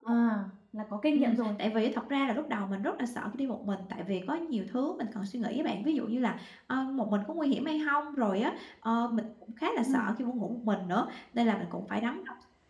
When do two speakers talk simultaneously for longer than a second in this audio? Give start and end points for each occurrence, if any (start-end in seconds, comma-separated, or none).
none